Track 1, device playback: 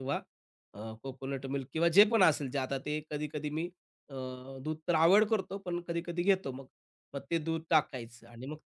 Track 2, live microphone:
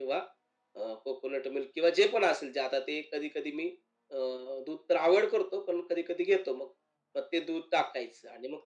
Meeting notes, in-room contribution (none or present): none